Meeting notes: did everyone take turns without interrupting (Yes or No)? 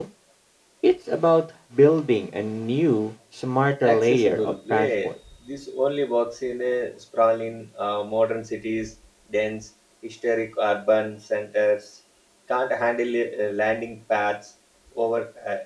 No